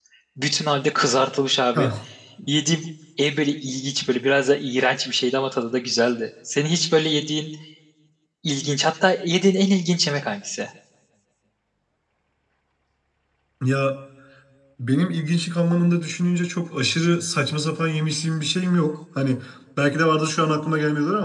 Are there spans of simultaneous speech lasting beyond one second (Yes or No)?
No